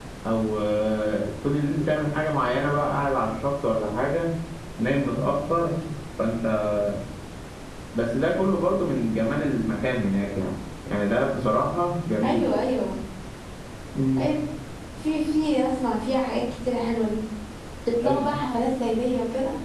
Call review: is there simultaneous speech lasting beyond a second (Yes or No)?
No